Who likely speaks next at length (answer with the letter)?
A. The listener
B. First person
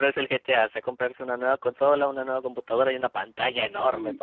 A